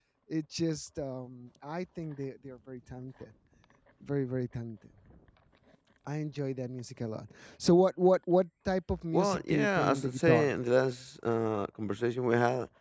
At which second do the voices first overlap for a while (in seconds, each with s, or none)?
9.1 s